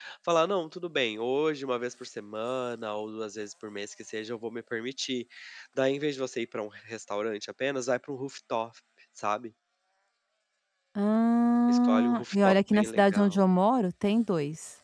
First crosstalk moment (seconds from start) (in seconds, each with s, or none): 11.7 s